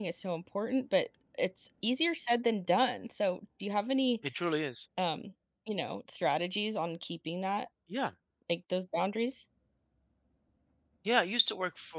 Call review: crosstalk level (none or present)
none